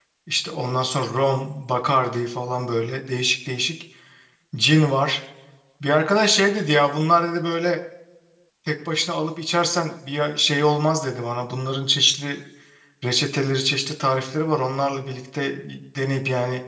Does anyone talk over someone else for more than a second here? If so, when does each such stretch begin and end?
none

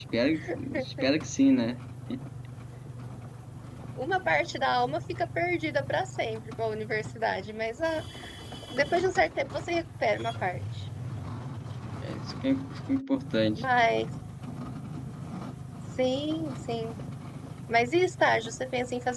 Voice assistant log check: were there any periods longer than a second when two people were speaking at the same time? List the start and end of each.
none

